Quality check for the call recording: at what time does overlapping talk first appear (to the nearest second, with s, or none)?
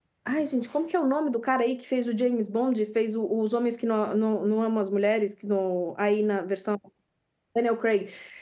none